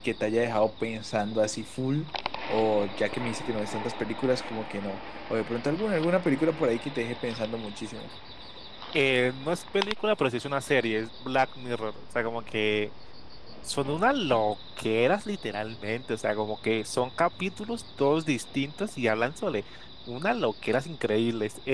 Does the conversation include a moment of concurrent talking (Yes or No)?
No